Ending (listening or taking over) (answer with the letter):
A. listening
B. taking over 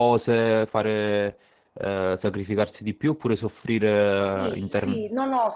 B